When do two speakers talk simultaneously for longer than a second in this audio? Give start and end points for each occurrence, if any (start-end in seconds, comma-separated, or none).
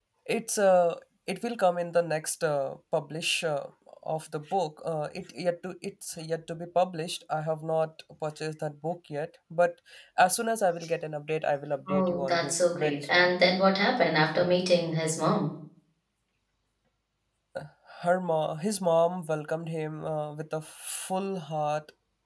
11.9-13.3